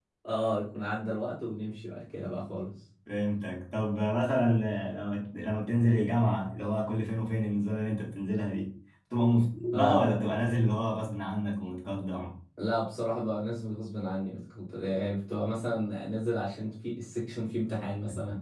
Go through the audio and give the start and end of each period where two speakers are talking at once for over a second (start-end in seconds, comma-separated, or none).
none